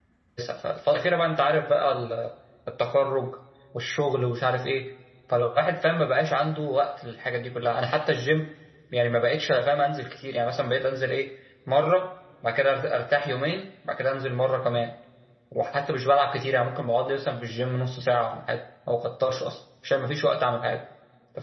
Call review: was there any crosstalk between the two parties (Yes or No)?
No